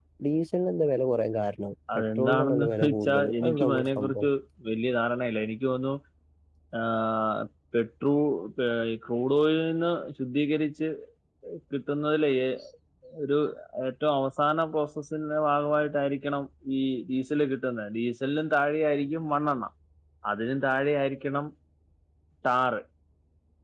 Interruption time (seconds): 2 s

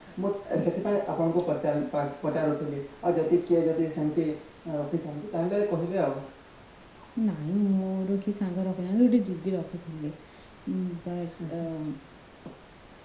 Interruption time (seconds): none

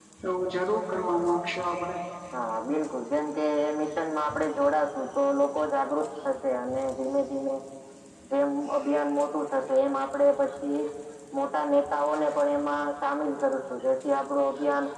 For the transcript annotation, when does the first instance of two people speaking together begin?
none

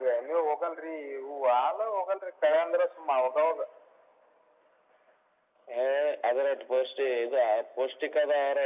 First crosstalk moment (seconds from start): none

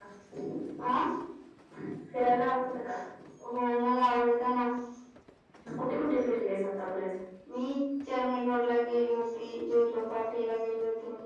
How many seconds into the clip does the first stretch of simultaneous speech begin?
none

